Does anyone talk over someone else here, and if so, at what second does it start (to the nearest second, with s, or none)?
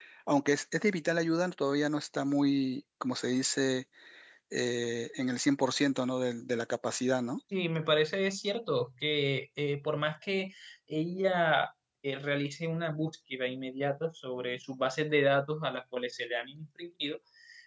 none